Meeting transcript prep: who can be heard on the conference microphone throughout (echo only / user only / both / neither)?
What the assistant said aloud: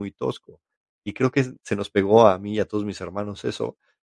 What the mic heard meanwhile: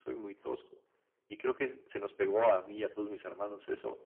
echo only